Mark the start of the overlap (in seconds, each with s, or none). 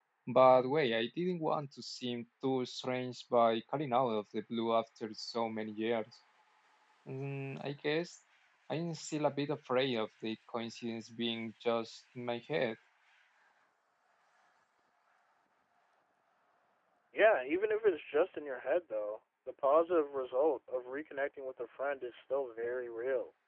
none